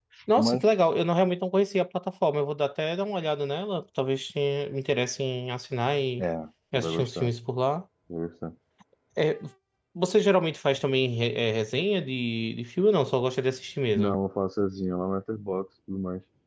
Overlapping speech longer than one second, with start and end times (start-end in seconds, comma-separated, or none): none